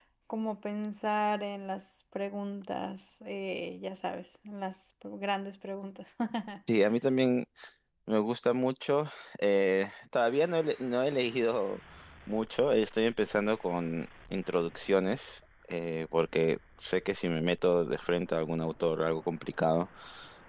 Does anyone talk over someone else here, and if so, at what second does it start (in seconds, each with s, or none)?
none